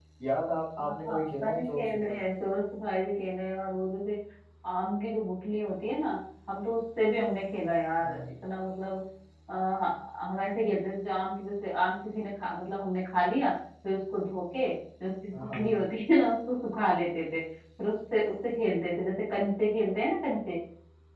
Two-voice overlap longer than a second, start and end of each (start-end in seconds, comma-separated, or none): 0.8-2.2